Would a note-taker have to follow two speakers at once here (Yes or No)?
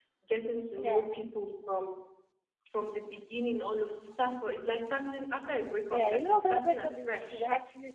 Yes